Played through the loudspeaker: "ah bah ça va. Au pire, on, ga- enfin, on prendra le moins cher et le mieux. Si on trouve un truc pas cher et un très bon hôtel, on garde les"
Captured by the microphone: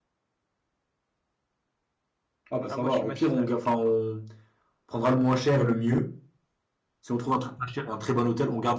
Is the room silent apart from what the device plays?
No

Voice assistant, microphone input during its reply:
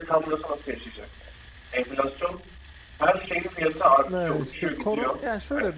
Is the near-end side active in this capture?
Yes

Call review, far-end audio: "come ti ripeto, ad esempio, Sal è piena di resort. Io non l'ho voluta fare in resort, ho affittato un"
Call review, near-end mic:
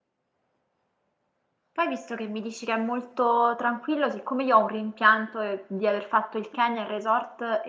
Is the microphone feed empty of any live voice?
No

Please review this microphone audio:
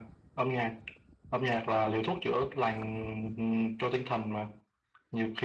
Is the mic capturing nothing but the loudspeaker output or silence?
Yes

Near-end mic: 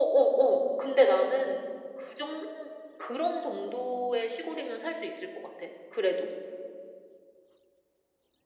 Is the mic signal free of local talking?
Yes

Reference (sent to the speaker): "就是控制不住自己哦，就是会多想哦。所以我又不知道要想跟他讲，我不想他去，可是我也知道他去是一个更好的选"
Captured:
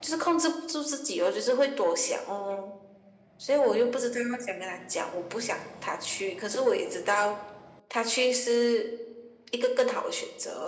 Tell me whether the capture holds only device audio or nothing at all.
Yes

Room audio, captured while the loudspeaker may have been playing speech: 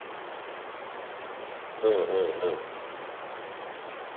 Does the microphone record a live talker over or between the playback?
Yes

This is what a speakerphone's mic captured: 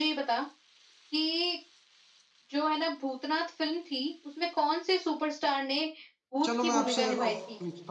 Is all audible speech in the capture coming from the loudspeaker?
No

